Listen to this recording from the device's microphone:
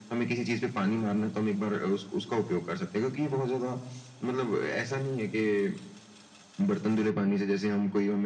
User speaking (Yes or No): No